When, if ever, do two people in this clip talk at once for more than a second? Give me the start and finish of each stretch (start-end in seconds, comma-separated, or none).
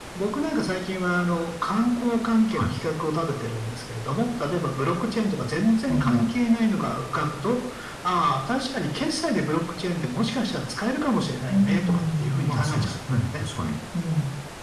11.5-12.9